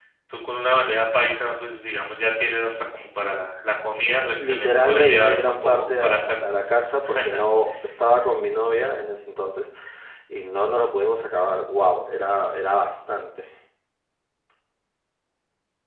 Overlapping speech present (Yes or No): Yes